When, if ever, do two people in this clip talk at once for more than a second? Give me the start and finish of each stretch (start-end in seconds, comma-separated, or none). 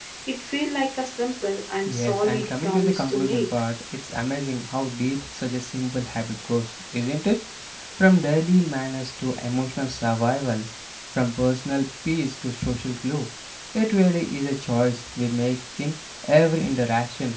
1.9-3.5